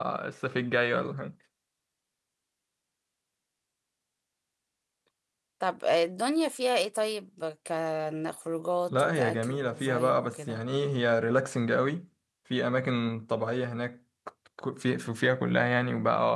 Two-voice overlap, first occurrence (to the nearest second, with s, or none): 9 s